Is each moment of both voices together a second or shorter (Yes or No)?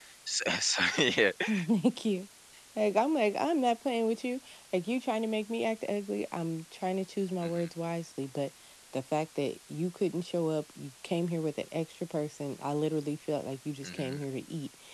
Yes